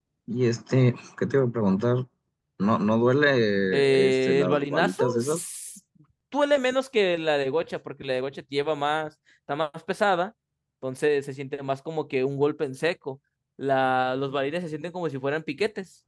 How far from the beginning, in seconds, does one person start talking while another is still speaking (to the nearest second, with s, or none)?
4 s